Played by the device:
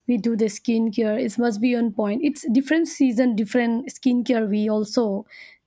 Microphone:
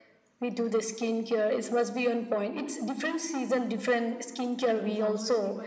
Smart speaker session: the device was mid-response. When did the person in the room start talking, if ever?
4.7 s

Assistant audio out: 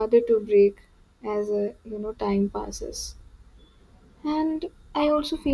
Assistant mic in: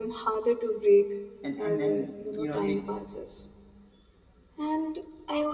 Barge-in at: 1.4 s

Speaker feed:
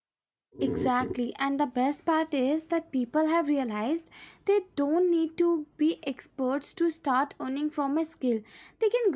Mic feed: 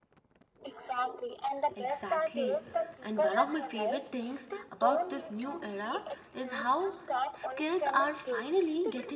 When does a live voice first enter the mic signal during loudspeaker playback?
1.8 s

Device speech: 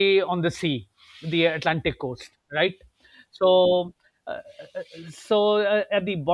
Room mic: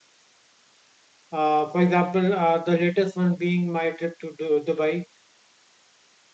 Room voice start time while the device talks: 1.3 s

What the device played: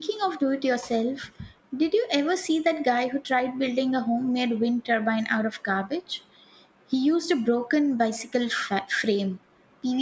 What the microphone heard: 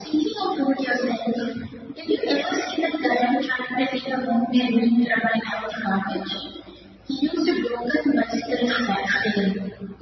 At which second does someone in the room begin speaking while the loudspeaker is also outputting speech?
none

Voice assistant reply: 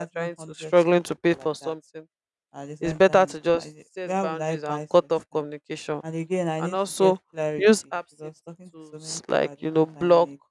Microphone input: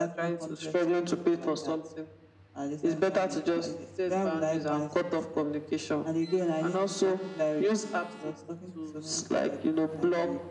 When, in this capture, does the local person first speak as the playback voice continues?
none

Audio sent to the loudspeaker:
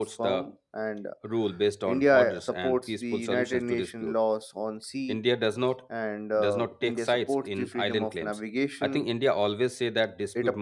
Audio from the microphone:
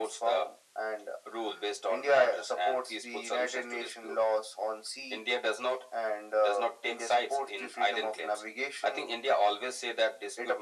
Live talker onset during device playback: none

